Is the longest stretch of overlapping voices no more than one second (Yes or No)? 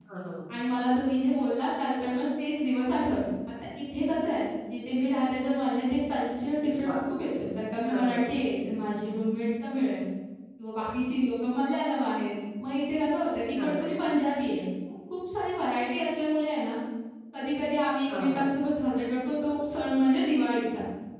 Yes